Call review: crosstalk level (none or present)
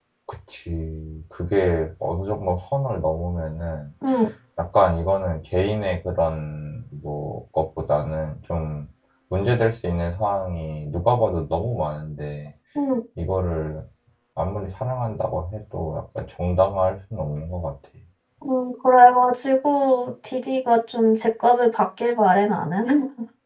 none